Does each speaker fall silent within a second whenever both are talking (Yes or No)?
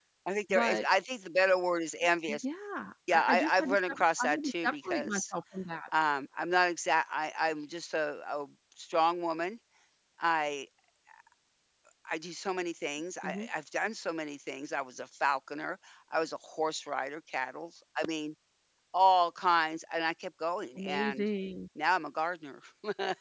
No